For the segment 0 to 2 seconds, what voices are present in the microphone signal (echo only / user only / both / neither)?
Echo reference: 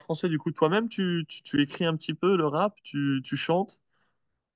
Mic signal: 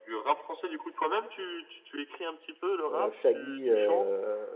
echo only